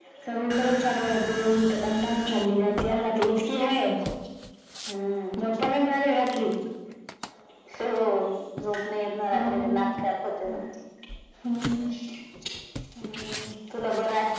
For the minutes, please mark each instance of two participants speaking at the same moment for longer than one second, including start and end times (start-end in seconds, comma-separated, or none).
none